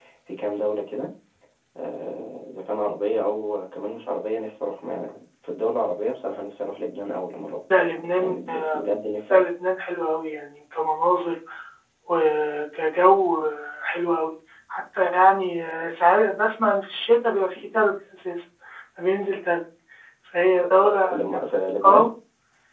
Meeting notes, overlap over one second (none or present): none